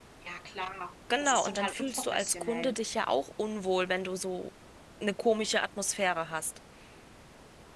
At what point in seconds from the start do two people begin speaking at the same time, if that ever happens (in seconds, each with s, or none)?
1.2 s